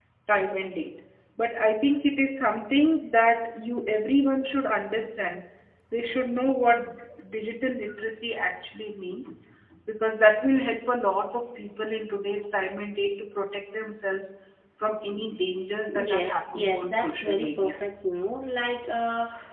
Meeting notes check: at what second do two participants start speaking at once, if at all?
16 s

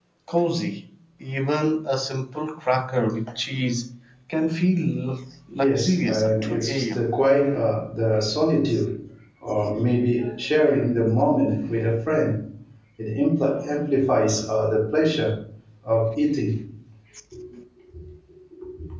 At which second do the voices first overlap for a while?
6 s

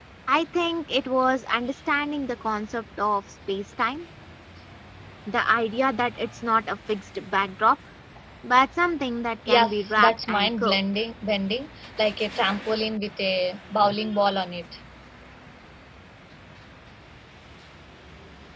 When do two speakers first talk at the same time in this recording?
9 s

